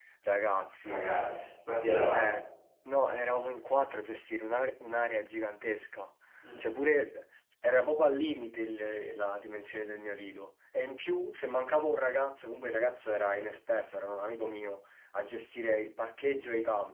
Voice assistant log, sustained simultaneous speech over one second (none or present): none